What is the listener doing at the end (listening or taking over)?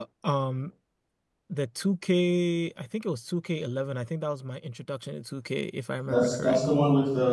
taking over